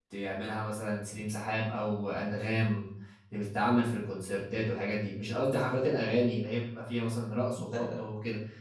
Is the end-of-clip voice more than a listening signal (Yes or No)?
No